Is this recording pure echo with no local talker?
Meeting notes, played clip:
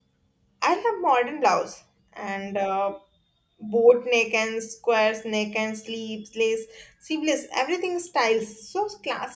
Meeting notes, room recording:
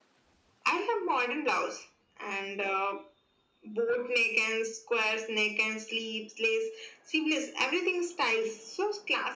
Yes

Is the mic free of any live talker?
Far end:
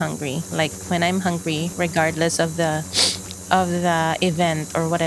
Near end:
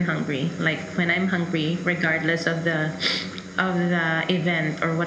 Yes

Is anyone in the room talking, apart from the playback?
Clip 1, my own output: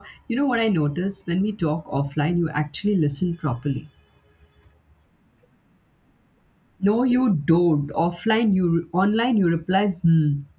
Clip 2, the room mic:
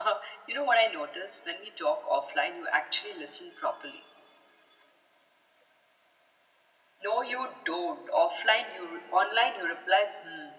No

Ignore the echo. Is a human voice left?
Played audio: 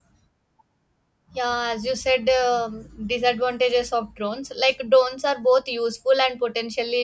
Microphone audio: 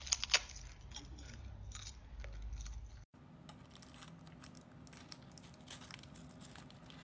No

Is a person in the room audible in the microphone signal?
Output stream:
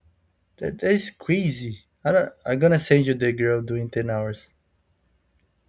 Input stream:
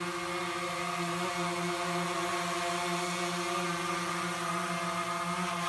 No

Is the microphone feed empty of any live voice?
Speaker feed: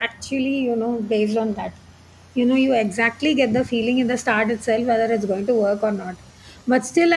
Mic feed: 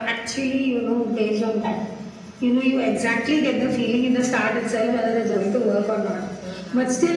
No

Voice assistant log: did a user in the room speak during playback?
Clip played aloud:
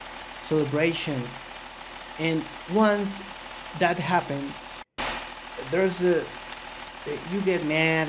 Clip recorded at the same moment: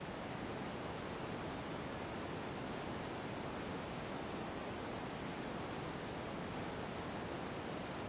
No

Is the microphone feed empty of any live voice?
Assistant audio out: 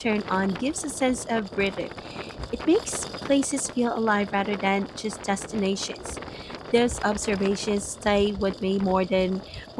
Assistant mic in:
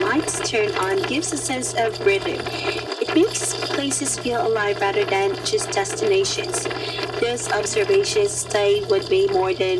Yes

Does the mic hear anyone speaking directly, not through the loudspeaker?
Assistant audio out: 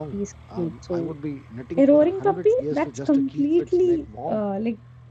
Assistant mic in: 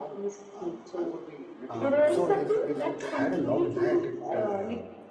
Yes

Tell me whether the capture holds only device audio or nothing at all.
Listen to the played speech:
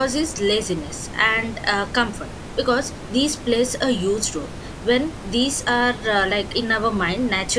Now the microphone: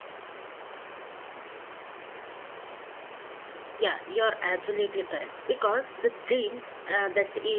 No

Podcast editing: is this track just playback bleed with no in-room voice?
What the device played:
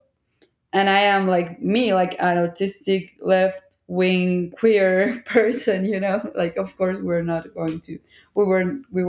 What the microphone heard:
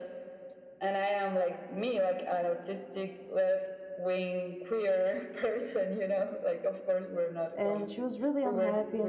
No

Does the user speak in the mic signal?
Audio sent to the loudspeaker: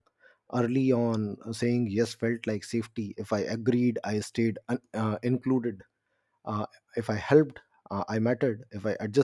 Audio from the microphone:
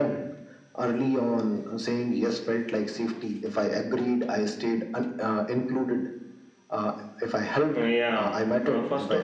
Yes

